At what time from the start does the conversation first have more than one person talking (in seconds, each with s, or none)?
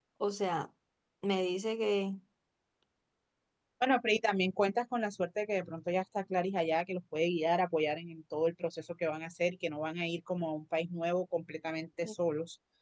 none